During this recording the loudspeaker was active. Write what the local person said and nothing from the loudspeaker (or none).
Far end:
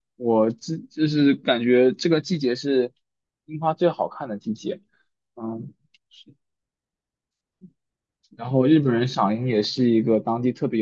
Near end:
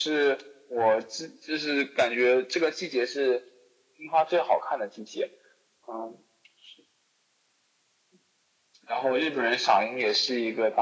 none